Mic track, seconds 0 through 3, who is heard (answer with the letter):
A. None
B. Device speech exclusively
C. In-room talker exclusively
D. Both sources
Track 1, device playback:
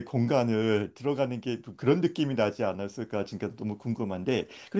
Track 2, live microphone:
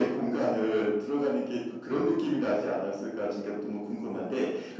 B